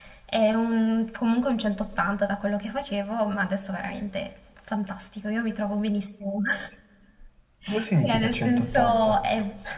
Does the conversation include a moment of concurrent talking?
Yes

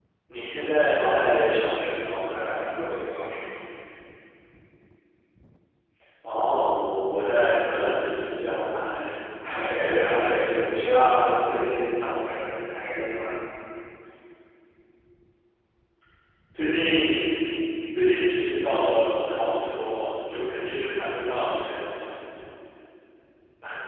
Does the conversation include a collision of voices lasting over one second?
Yes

